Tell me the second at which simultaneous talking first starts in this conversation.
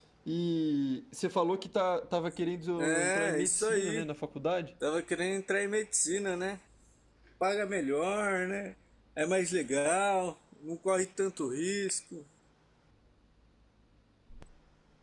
2.8 s

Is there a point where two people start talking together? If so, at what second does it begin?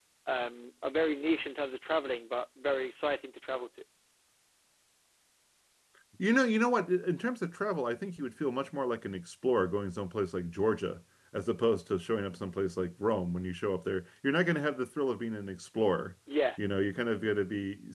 none

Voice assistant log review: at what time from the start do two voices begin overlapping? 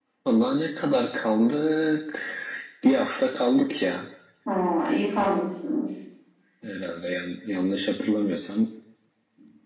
none

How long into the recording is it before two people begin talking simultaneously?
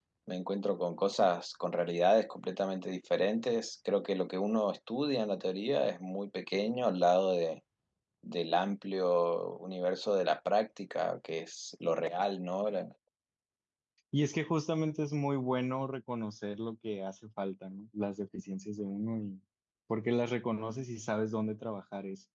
none

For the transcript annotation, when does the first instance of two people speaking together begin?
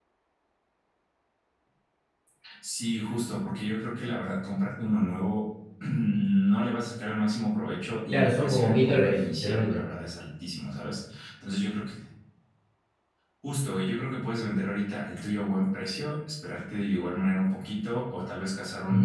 8.1 s

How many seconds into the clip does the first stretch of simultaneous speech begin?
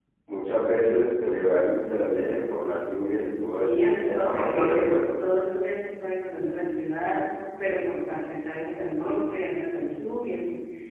3.6 s

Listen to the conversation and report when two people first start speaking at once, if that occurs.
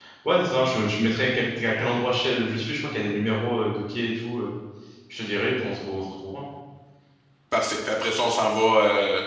none

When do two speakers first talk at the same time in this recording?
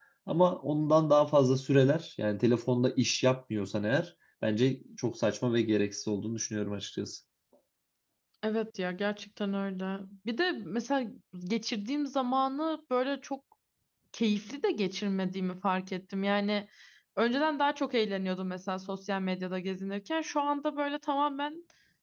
none

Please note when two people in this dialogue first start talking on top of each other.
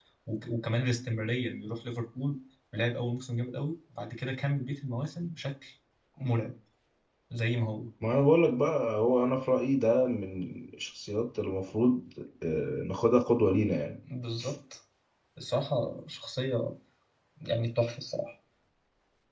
none

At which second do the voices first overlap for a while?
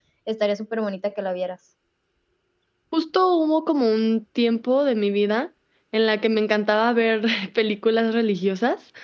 none

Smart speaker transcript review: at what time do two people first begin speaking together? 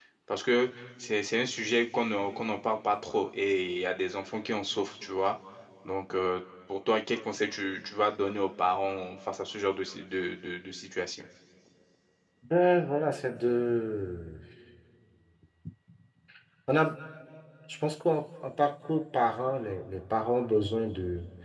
none

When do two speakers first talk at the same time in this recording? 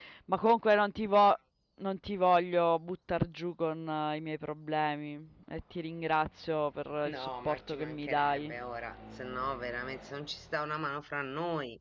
7.0 s

